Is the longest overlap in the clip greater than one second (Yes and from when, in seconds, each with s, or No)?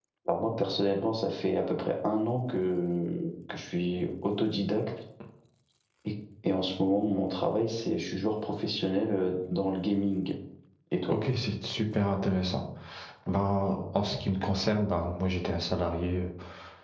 No